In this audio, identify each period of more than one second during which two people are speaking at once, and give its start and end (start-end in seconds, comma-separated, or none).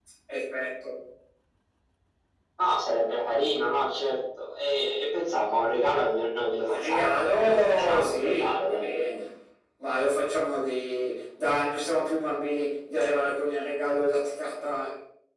6.7-8.9